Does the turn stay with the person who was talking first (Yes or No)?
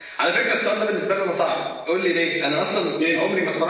Yes